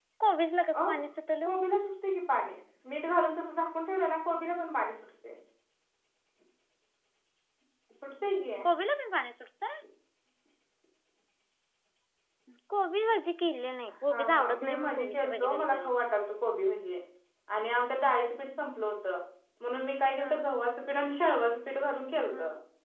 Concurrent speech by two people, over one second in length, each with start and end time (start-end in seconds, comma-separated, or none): 14.1-15.9